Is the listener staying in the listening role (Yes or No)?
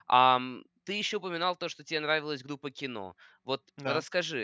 Yes